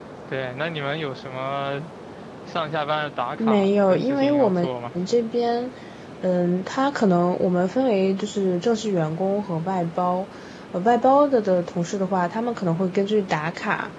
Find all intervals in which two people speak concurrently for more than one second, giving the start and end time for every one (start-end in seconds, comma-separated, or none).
3.4-4.7